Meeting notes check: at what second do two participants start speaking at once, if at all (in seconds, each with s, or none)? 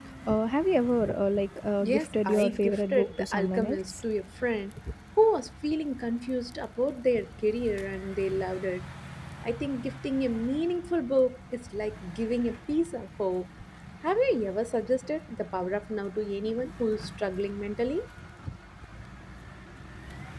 1.8 s